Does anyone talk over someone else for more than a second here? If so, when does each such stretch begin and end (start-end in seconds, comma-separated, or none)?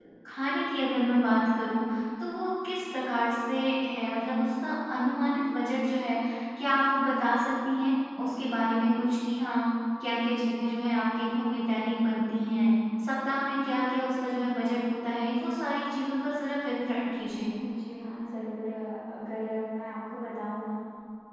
none